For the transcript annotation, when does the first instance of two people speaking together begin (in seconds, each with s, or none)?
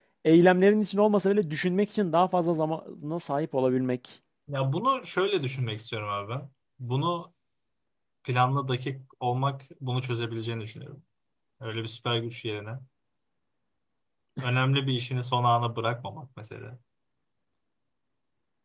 none